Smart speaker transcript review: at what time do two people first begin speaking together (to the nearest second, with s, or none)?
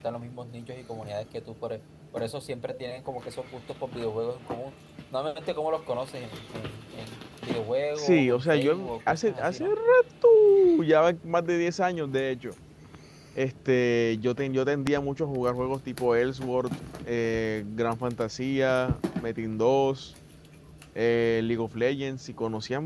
8 s